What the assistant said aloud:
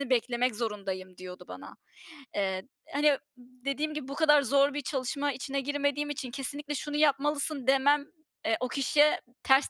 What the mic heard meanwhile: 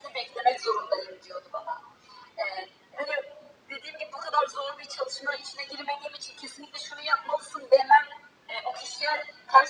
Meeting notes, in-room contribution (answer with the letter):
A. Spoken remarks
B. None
B